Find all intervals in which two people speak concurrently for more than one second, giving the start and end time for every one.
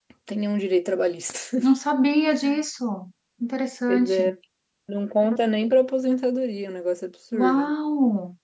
none

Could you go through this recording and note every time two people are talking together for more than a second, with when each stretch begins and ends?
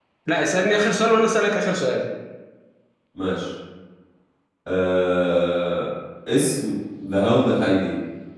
none

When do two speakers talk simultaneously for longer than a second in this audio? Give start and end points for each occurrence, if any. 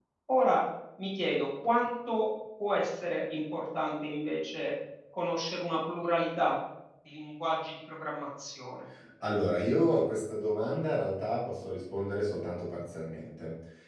none

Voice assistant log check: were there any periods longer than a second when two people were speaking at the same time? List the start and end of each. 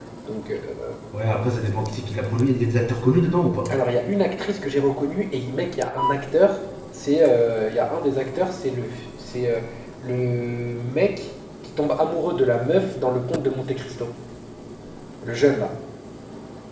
none

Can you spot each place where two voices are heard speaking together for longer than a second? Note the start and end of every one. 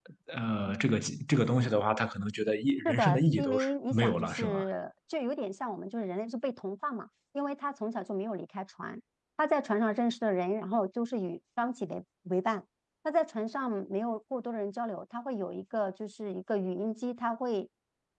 2.9-4.6

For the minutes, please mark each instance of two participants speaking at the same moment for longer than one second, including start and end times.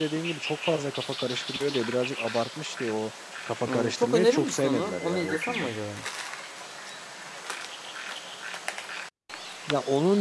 3.7-5.7

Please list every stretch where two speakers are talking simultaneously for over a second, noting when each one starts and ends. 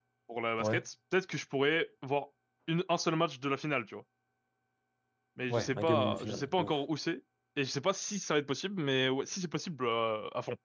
5.5-6.8

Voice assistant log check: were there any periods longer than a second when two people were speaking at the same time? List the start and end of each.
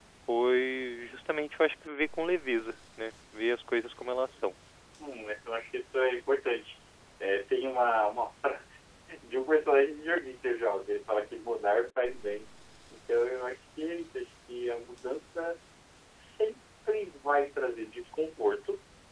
none

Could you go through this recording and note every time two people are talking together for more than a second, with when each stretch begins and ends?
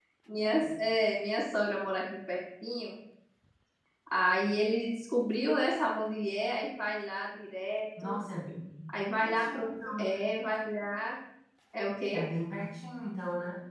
9.0-10.2

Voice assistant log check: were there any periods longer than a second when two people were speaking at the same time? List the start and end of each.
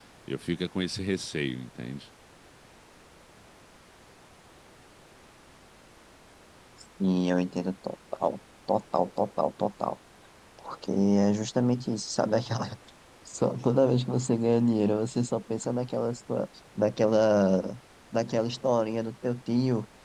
none

